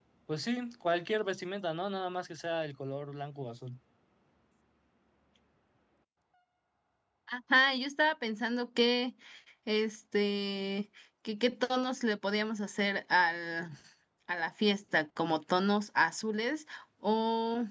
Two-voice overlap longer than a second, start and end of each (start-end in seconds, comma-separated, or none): none